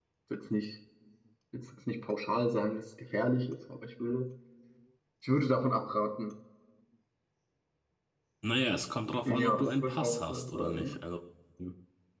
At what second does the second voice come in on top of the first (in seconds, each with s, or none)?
9.2 s